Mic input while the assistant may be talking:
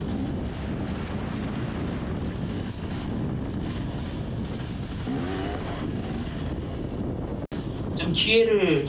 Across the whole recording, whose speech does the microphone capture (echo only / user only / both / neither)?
user only